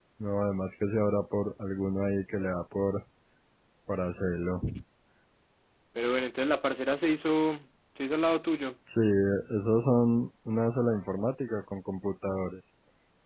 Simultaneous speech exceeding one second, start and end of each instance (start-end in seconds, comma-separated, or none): none